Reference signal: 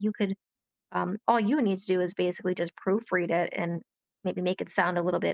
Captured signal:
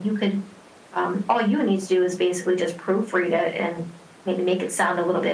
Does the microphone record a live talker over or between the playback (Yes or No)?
No